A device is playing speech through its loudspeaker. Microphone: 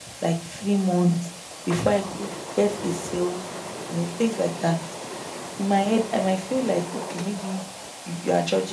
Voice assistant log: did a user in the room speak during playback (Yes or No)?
No